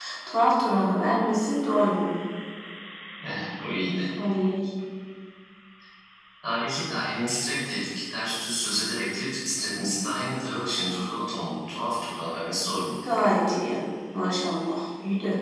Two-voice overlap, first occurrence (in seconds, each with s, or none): none